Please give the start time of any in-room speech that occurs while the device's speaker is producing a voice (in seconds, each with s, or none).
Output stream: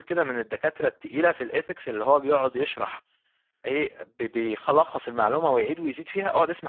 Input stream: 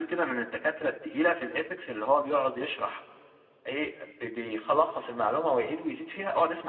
none